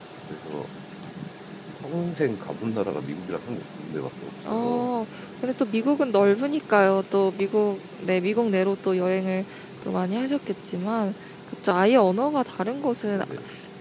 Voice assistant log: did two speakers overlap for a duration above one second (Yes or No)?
No